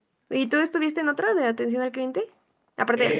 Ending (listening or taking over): taking over